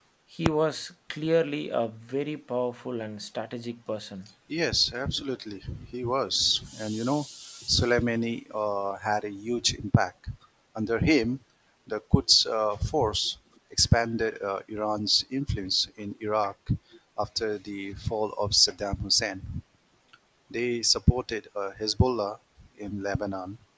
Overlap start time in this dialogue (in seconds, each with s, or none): none